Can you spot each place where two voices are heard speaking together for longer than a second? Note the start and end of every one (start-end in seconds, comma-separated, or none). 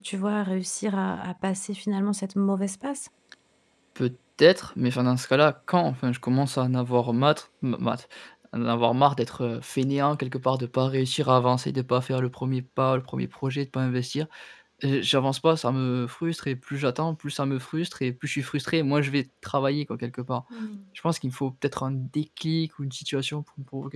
none